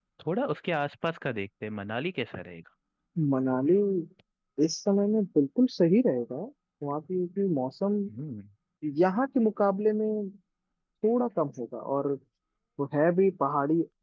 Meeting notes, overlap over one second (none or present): none